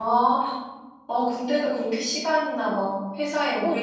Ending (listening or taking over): taking over